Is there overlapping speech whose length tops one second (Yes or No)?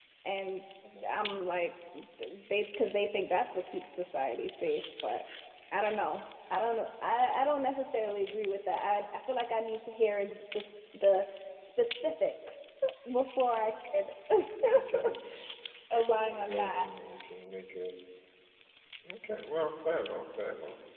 No